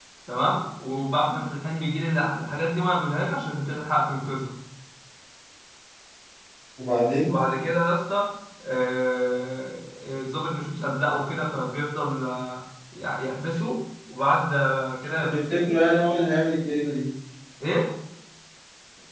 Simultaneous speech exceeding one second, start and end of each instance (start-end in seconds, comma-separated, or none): none